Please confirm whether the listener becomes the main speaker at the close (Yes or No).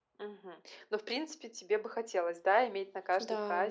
No